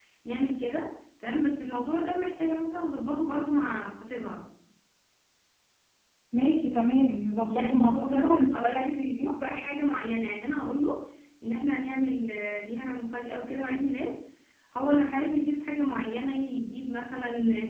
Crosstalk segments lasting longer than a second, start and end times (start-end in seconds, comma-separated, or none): 7.5-8.8